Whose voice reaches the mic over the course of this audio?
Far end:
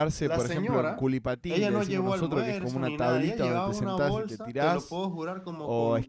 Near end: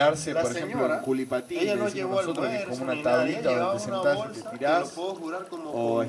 echo only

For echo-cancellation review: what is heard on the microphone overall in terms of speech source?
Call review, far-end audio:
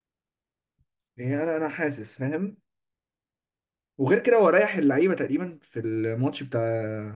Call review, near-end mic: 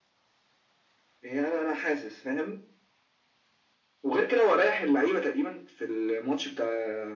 echo only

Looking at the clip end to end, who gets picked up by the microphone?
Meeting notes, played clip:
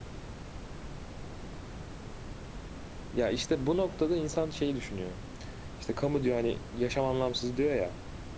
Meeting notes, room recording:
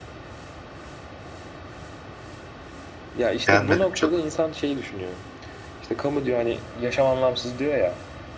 both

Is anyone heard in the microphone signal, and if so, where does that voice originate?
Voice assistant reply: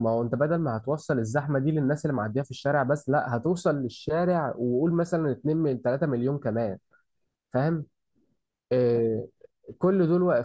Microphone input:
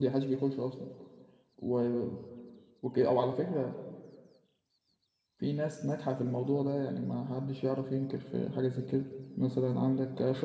user only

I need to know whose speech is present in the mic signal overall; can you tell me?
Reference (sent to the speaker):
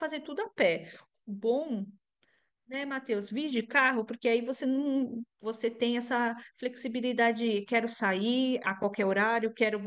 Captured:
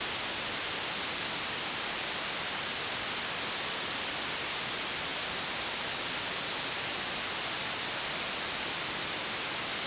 neither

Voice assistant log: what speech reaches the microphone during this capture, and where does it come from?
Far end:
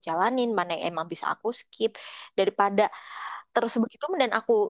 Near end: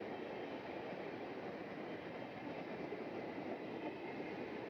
neither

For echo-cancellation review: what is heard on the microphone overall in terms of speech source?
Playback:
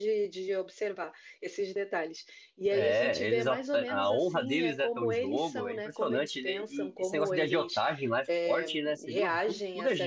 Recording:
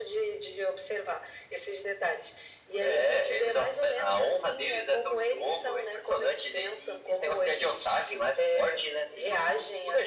echo only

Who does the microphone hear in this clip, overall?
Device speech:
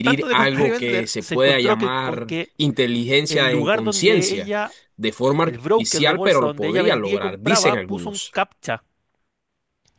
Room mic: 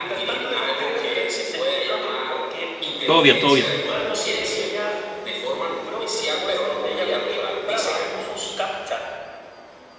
both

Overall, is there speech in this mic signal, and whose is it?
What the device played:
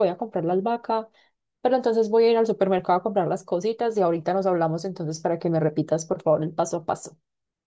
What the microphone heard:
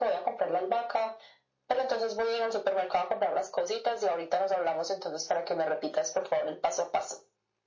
echo only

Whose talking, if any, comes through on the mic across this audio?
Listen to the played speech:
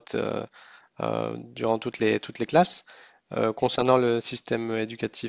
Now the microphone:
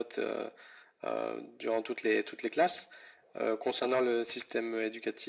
echo only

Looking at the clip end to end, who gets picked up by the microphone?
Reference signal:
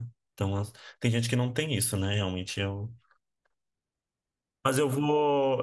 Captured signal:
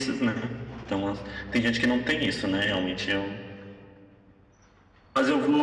echo only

